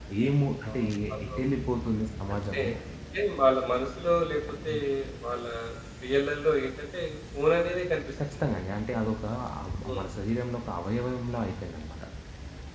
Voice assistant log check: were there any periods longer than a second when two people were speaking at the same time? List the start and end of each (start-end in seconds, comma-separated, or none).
none